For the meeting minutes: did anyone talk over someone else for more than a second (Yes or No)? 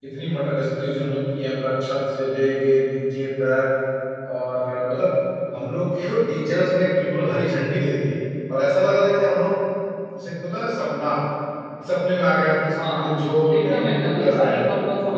Yes